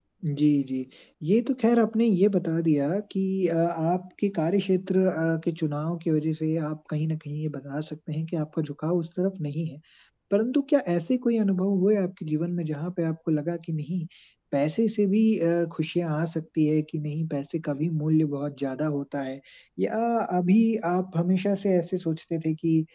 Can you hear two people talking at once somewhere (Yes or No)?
No